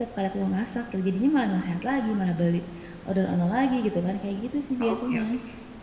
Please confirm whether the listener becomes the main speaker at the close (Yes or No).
Yes